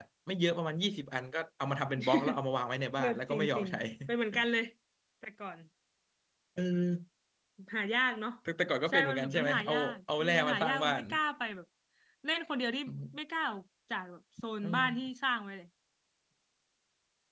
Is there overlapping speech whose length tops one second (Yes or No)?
Yes